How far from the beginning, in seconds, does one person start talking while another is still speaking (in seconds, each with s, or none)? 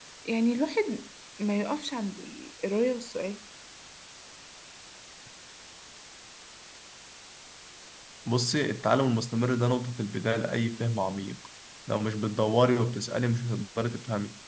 none